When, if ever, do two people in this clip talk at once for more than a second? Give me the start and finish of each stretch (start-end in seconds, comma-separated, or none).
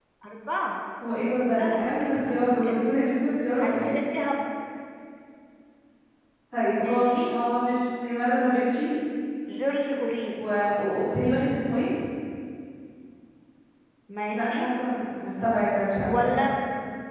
1.5-2.9